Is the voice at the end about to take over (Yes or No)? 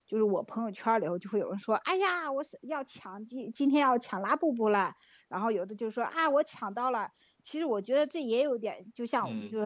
No